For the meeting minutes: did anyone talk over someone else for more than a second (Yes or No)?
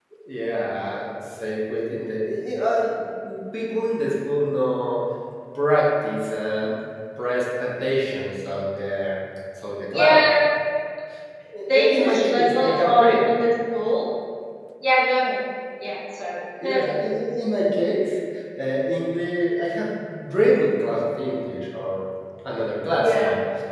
Yes